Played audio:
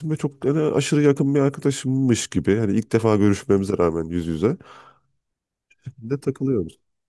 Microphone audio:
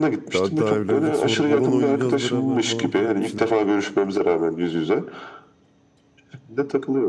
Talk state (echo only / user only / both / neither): both